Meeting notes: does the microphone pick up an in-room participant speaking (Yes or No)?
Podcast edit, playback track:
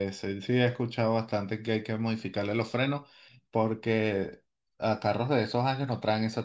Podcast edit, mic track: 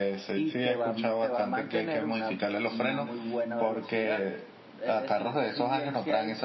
Yes